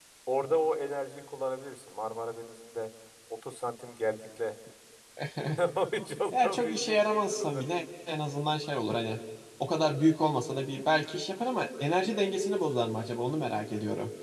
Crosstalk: present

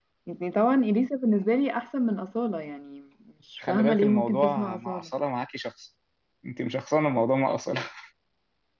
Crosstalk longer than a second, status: present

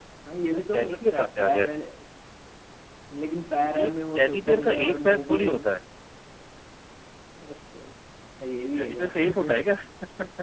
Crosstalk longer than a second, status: present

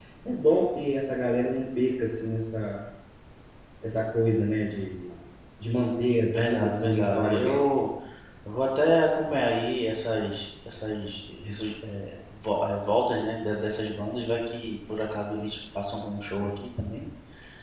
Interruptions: present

